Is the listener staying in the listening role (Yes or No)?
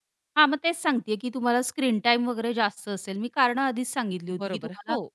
No